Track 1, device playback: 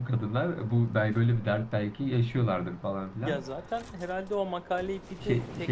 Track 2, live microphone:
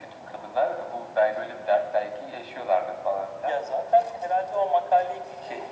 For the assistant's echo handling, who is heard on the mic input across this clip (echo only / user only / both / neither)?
echo only